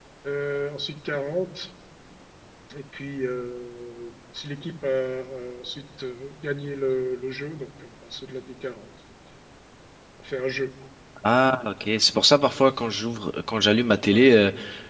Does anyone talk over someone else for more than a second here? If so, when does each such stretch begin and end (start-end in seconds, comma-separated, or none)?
none